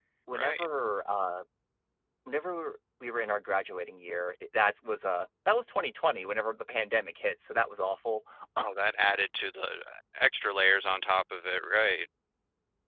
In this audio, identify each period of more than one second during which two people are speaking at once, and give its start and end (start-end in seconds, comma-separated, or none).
none